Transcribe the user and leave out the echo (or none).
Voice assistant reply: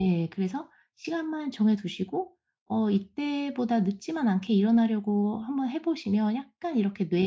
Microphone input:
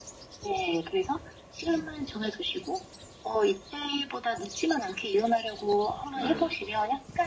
네.